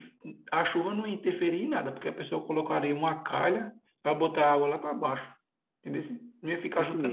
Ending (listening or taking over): taking over